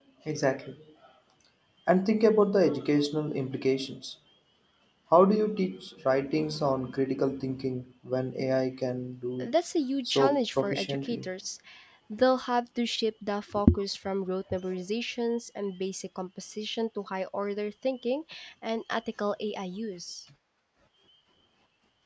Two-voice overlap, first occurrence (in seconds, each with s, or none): 10.0 s